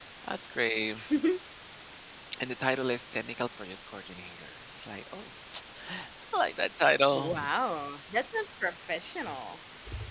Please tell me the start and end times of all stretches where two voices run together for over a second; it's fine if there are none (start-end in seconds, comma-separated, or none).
none